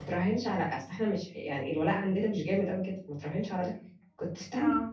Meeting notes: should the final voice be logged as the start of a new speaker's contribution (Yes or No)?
No